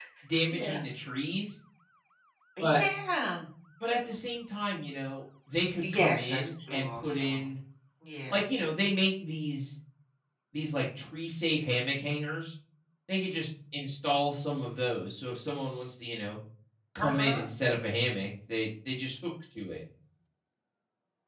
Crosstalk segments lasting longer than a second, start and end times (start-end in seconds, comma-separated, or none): 5.8-7.4